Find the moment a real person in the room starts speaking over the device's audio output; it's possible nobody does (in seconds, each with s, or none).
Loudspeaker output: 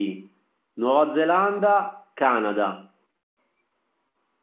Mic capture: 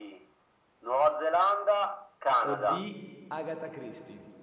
2.4 s